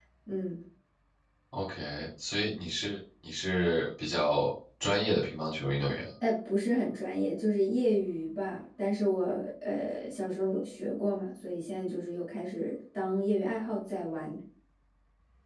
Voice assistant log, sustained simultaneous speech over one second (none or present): none